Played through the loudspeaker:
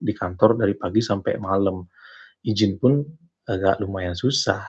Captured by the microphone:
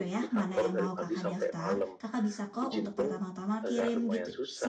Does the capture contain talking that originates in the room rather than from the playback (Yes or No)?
Yes